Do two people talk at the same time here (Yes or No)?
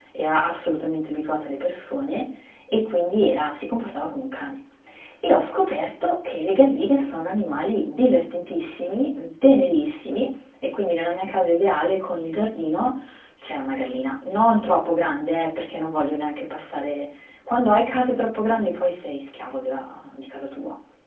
No